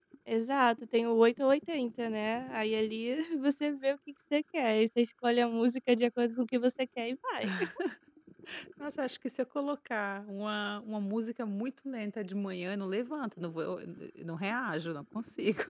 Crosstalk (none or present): none